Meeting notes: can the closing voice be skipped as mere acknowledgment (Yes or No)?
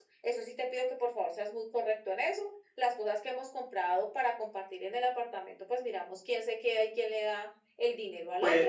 No